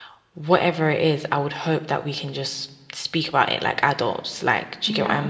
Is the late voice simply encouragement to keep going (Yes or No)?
Yes